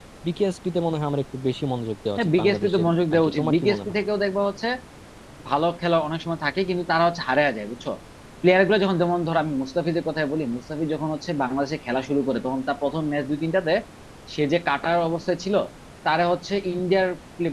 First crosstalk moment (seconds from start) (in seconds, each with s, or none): 2.2 s